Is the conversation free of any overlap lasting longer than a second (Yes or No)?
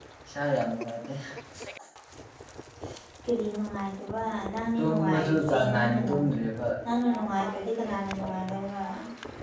No